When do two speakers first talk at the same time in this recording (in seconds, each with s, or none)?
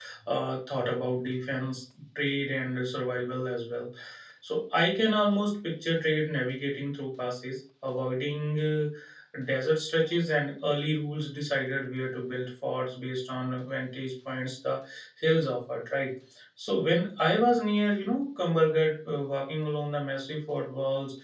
none